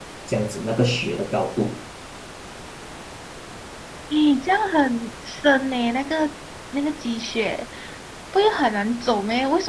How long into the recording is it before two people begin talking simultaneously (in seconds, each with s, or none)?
none